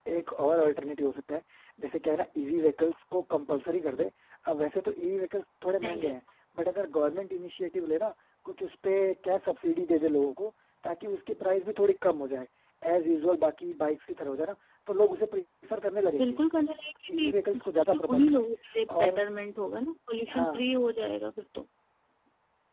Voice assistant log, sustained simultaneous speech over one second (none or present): present